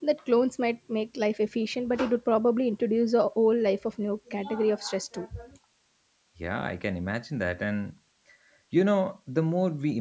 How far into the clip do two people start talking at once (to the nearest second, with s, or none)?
none